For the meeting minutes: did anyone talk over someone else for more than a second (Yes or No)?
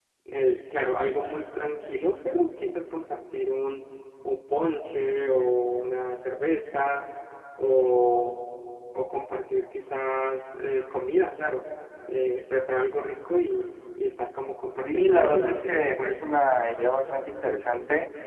Yes